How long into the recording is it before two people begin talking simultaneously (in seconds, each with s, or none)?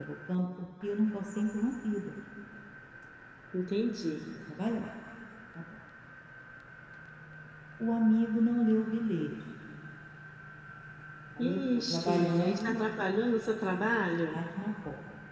11.5 s